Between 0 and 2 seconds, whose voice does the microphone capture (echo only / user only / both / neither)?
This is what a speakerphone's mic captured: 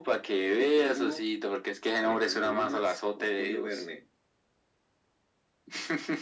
echo only